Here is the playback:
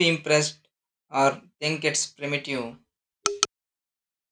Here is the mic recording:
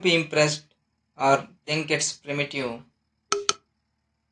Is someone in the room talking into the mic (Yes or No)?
No